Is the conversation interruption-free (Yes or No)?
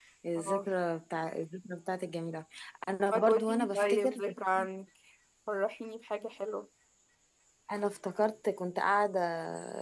No